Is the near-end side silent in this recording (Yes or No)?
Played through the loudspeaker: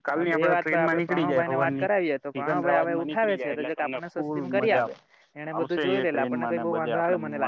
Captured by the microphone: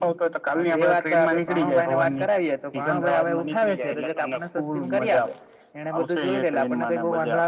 Yes